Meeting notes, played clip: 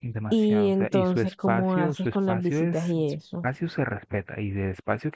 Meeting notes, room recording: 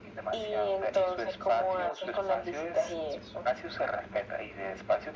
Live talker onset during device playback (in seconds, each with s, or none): none